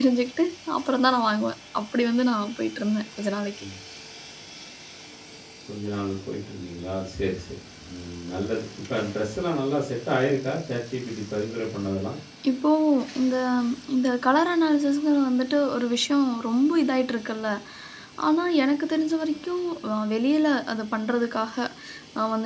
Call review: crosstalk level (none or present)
none